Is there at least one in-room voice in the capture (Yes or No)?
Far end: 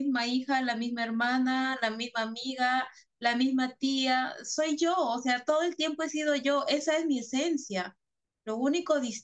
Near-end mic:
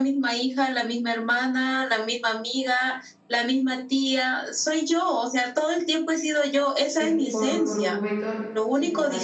Yes